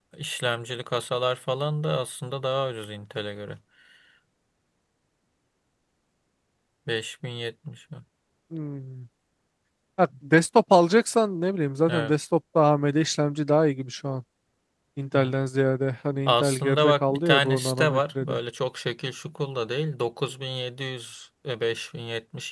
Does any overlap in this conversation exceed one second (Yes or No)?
Yes